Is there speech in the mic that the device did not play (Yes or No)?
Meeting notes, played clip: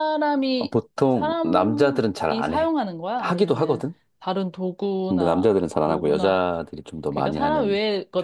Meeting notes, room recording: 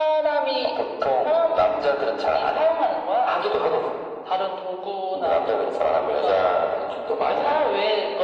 No